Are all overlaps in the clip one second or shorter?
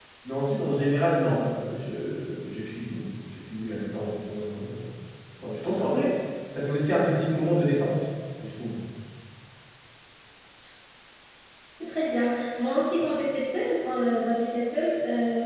Yes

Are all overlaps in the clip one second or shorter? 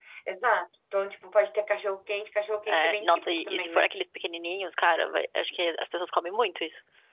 No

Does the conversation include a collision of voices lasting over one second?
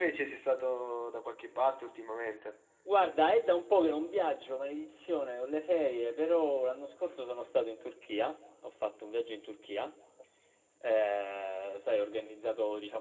No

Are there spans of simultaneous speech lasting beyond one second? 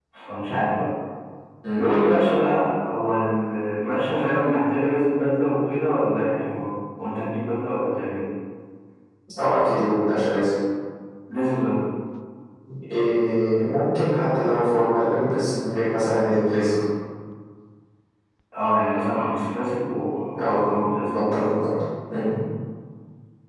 No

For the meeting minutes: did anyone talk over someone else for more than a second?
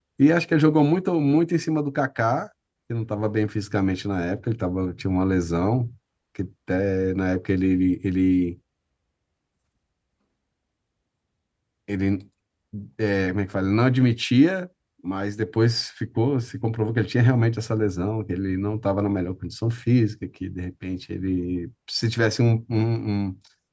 No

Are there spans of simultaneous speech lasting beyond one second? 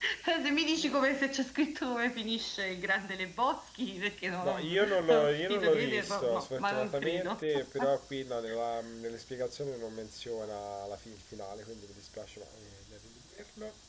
Yes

